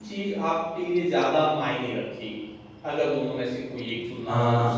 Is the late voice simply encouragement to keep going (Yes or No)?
No